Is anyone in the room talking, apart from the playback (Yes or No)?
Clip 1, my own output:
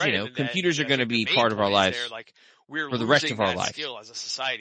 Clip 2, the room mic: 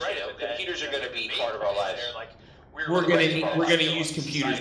Yes